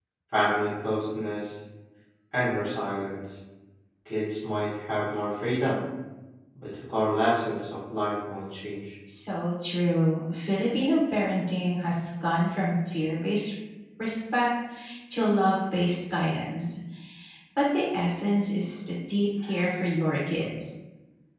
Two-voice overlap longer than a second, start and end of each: none

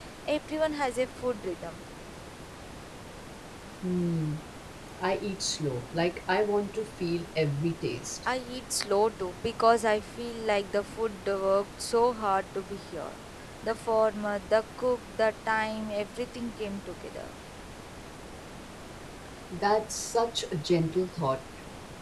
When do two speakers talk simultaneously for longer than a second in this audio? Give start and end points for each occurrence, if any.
none

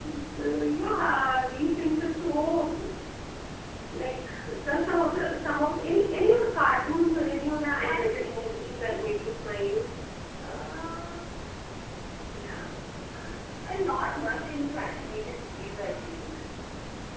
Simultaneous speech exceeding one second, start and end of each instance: 7.8-9.2

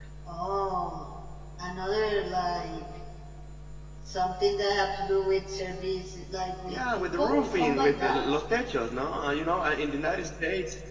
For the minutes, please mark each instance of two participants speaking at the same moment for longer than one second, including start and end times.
6.7-8.2

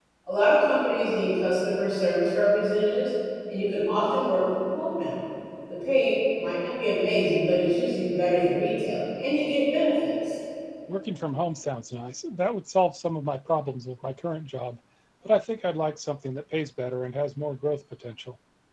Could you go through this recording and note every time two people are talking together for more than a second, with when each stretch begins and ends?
none

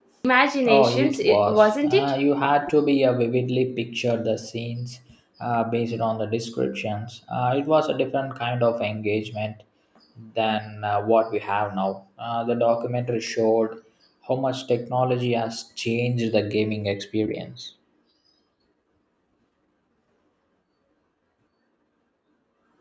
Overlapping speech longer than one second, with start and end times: 0.7-2.1

